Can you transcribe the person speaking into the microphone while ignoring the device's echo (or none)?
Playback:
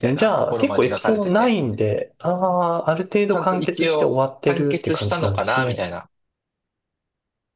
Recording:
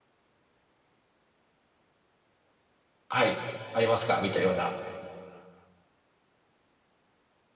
はい、ありますか見たような、